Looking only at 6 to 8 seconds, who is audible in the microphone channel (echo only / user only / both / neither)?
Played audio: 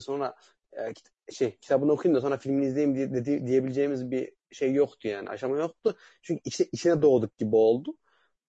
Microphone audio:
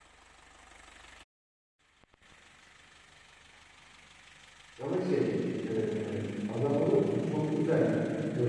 user only